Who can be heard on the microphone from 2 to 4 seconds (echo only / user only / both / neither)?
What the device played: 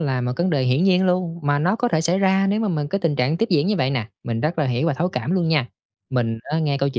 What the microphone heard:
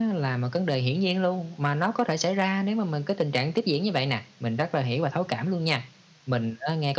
echo only